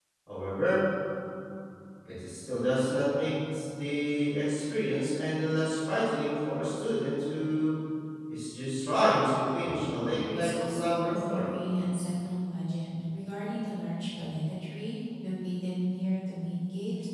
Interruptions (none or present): present